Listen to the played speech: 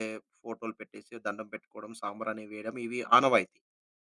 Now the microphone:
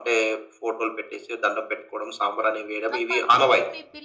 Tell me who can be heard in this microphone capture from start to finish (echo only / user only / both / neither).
both